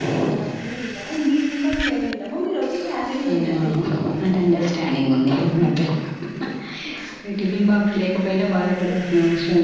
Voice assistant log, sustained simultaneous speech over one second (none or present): none